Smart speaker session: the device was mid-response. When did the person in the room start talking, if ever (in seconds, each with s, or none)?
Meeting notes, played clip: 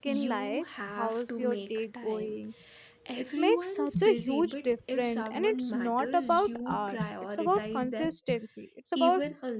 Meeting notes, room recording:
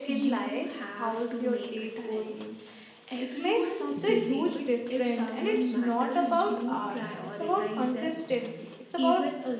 none